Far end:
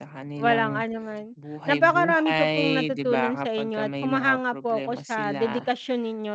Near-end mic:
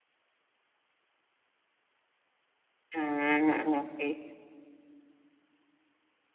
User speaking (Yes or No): Yes